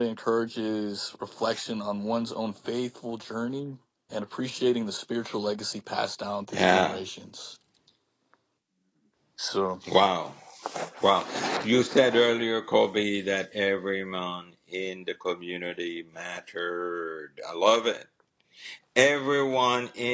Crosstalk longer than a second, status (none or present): none